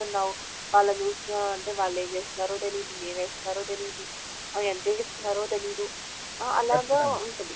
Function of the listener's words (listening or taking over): listening